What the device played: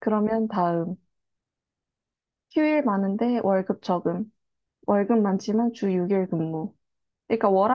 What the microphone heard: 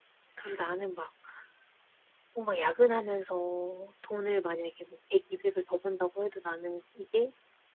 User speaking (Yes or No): Yes